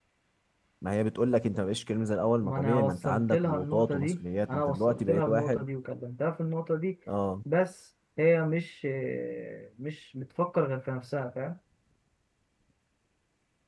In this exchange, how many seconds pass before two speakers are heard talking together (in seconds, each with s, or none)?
2.4 s